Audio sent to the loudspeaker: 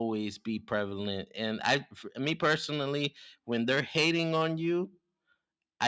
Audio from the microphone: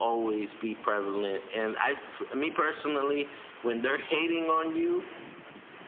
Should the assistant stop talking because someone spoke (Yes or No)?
No